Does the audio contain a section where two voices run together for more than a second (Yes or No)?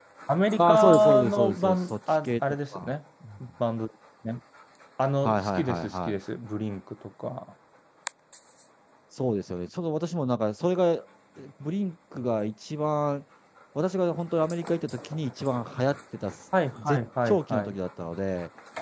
Yes